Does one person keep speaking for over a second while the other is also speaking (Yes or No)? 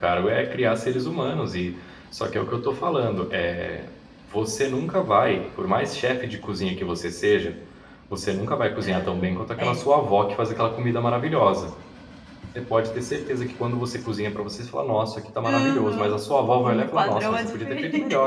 Yes